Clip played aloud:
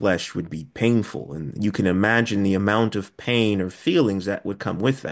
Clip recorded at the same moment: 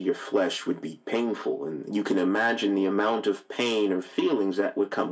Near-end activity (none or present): none